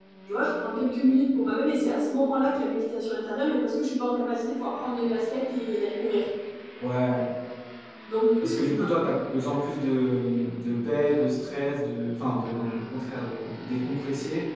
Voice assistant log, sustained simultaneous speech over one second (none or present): none